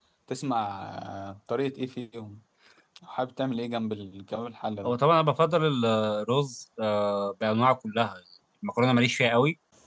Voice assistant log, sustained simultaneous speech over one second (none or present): none